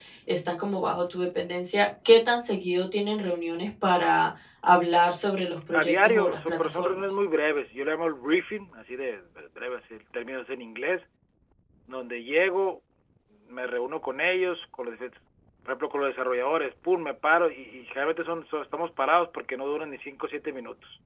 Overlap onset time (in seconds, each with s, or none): 5.7 s